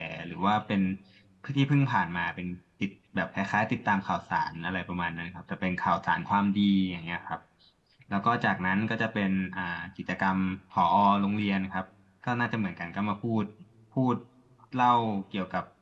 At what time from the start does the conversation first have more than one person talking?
none

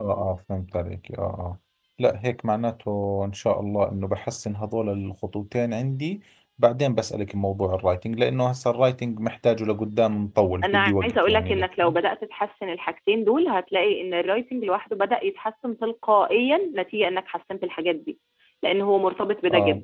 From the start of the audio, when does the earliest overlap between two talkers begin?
10.6 s

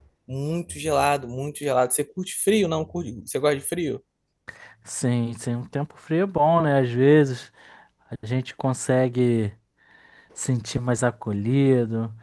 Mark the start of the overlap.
none

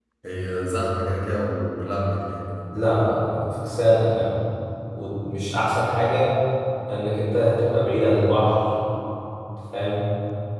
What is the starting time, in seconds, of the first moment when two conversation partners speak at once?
none

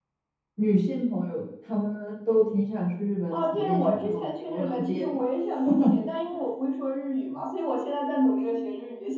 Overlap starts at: 3.3 s

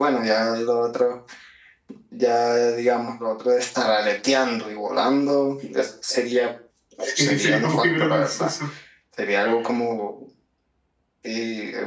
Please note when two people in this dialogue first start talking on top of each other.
7.2 s

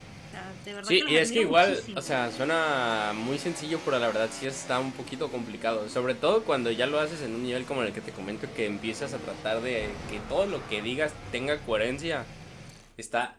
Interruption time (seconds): 0.8 s

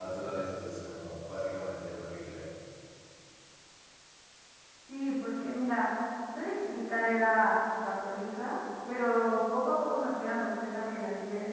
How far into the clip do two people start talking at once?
none

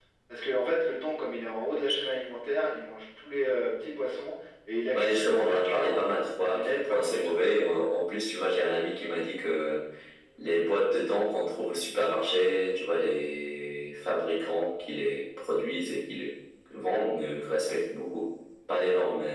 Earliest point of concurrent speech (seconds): 4.9 s

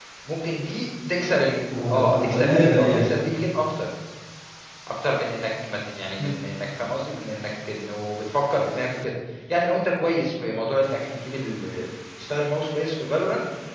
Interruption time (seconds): 1.7 s

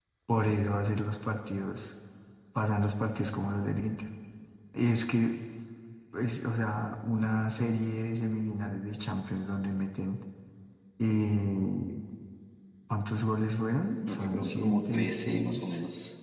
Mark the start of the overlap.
14.1 s

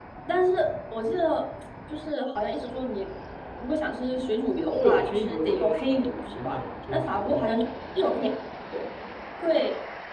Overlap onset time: 4.7 s

